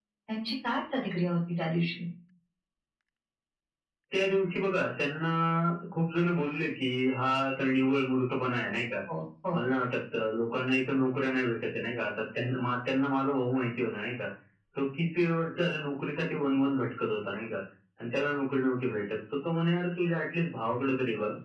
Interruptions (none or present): none